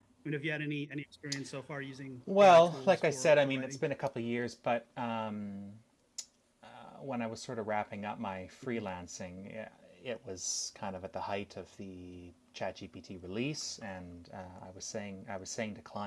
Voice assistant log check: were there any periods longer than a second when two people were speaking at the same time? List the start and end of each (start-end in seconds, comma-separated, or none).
2.4-3.8